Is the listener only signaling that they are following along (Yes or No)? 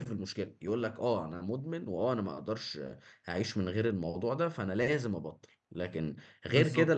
Yes